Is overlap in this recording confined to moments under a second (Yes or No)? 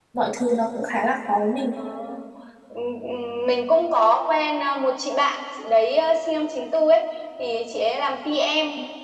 Yes